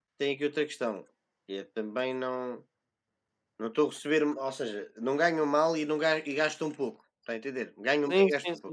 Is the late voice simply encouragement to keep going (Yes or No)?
No